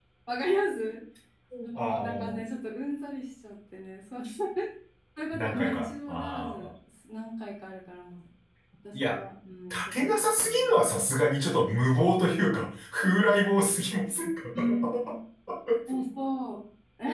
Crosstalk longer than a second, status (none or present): present